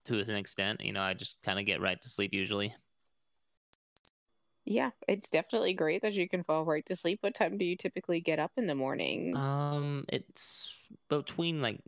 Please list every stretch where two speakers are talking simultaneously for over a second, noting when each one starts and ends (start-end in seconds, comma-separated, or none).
none